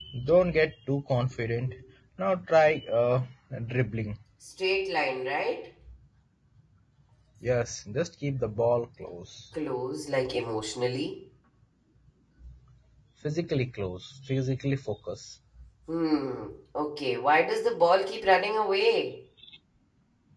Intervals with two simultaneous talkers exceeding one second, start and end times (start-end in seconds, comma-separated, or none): none